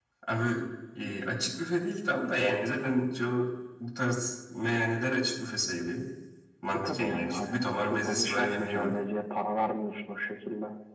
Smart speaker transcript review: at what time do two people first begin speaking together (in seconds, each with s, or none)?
6.7 s